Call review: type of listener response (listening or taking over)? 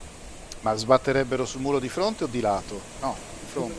taking over